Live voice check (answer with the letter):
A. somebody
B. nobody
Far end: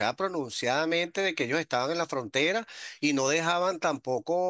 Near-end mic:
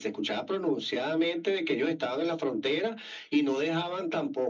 B